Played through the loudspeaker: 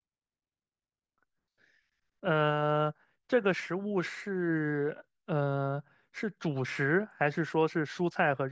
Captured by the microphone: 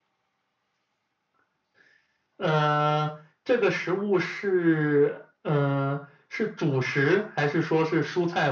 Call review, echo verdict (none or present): present